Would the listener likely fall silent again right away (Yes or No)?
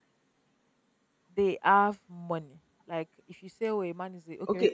No